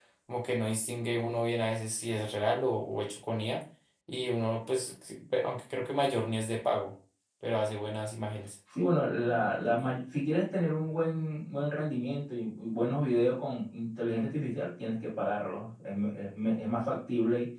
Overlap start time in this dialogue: none

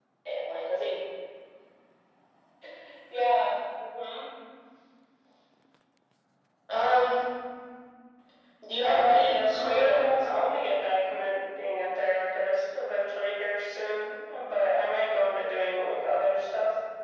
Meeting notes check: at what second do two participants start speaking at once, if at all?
8.8 s

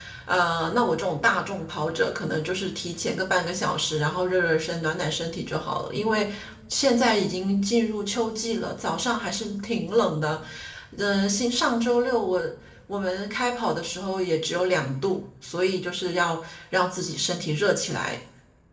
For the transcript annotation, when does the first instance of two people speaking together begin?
none

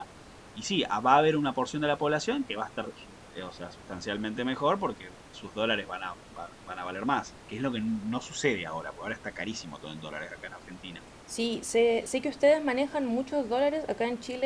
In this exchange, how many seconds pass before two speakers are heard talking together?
none

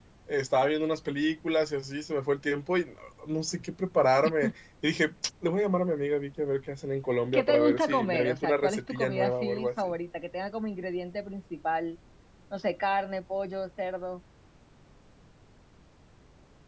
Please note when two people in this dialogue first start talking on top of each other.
7.3 s

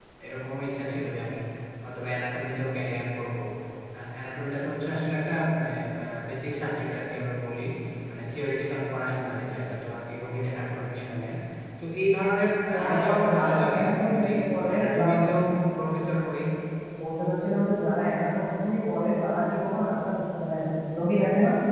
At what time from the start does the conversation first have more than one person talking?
12.7 s

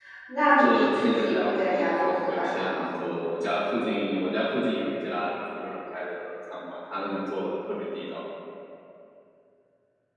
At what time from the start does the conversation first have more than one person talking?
0.6 s

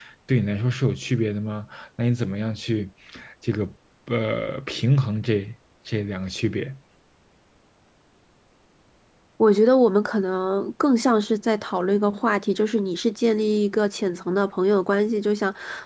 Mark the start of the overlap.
none

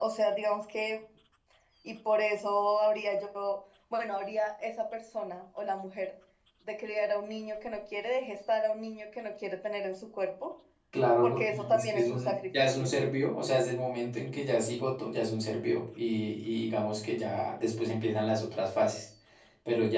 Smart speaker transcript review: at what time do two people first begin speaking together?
11.2 s

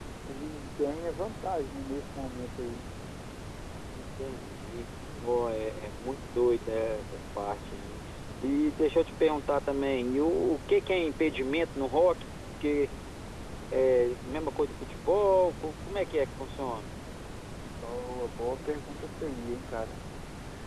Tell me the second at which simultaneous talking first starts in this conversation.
none

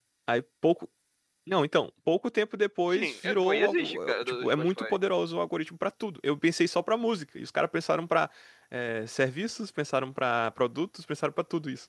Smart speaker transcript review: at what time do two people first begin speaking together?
2.9 s

